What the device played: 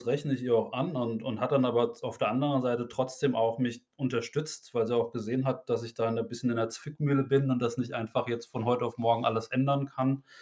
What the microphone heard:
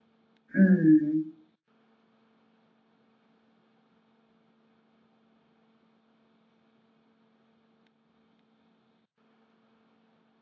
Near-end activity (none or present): present